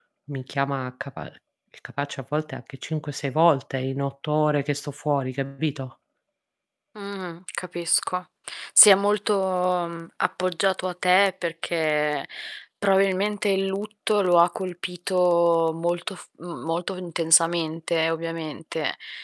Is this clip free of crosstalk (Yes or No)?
Yes